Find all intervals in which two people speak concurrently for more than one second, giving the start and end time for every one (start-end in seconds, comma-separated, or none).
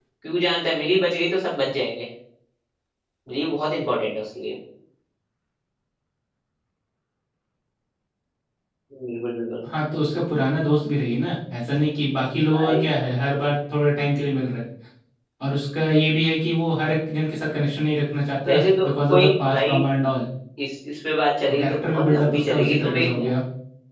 18.5-19.8, 21.5-23.1